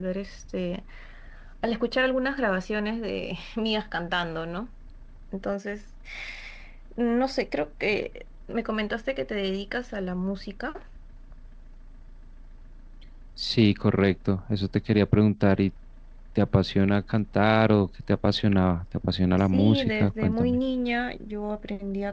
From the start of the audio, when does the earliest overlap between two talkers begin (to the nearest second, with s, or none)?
19 s